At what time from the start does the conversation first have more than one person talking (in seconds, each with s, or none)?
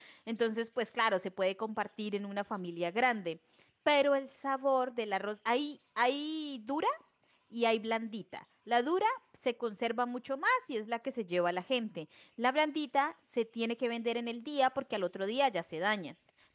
none